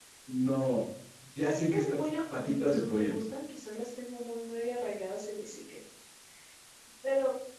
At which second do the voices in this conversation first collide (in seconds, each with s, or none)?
1.4 s